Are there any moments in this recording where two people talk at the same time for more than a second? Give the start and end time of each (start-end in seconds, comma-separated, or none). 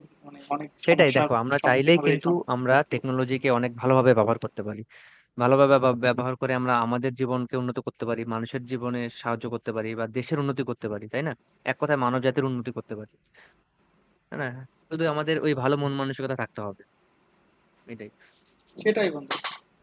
0.9-2.4